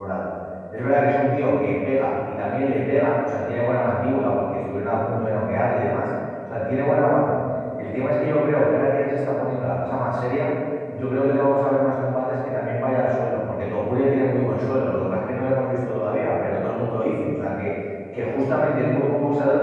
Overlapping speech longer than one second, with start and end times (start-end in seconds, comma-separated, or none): none